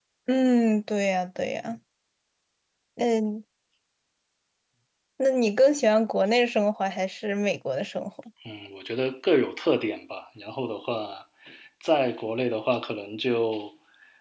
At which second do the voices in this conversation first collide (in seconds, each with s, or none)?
none